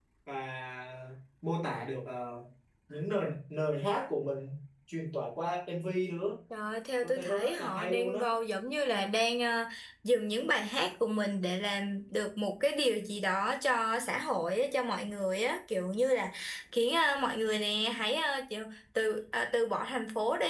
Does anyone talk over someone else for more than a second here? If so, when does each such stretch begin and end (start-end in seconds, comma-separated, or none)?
7.0-8.3